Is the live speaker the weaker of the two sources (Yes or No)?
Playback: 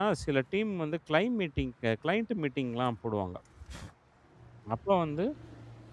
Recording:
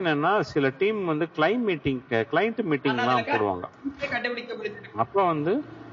Yes